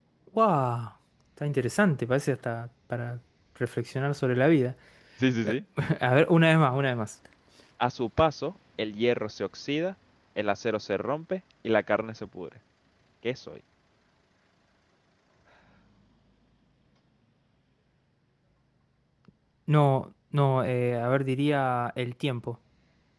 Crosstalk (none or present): none